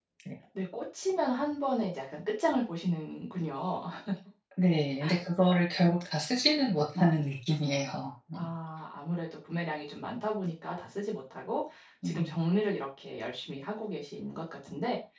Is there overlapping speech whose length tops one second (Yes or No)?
No